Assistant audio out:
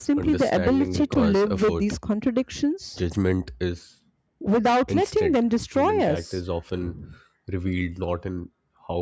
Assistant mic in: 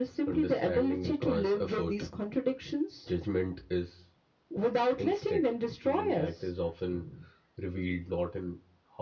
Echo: present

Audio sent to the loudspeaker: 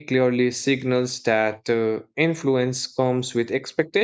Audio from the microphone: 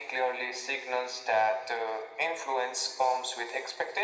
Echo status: present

